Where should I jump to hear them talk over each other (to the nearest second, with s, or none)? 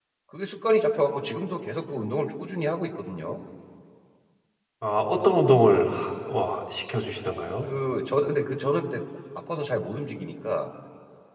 none